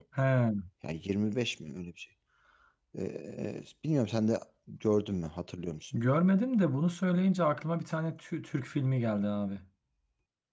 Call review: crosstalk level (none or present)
none